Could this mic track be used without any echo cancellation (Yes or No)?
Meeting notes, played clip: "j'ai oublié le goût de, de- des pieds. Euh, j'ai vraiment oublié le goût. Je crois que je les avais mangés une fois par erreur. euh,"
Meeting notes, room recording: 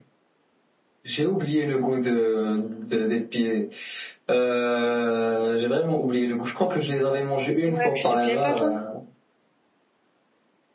No